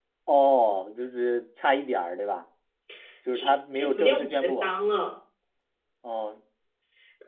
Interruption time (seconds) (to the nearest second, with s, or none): 3 s